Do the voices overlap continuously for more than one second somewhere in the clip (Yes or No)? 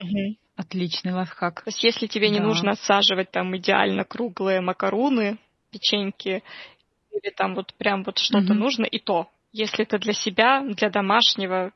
No